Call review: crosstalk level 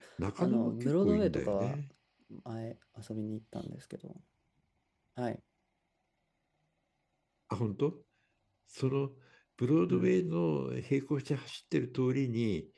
present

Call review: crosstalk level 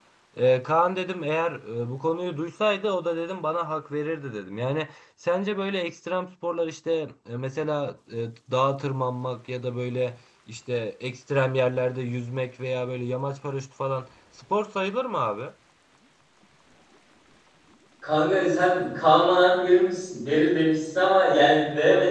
none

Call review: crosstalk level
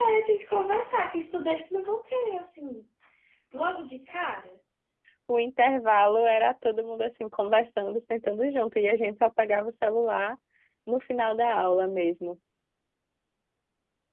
none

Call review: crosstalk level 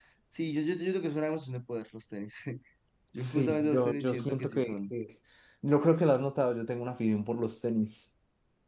present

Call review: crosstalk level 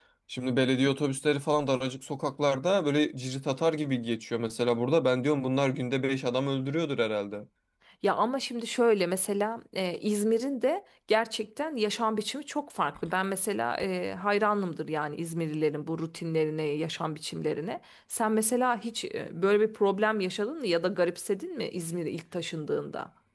none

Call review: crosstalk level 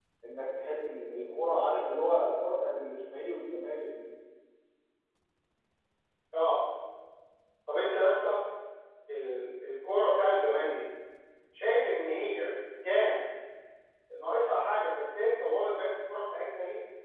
none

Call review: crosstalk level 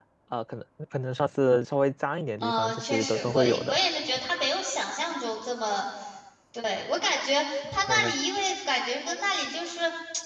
present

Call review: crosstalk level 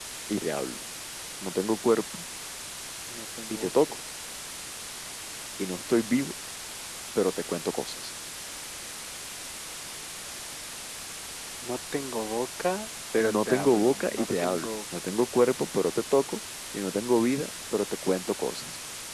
present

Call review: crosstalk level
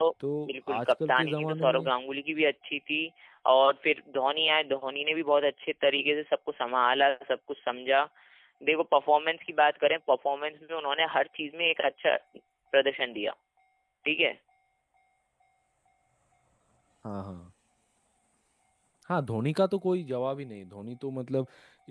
present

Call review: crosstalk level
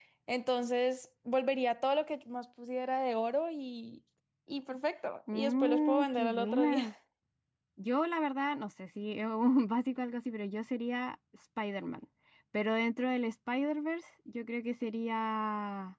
present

